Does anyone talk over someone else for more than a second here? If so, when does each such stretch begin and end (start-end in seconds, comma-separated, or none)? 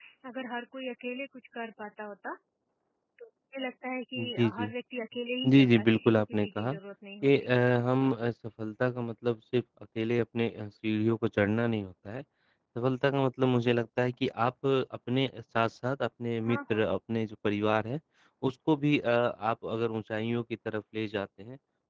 5.5-6.7